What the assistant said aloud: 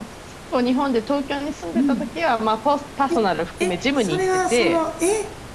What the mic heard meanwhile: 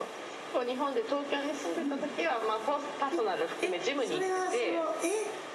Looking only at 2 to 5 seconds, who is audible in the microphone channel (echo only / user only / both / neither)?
echo only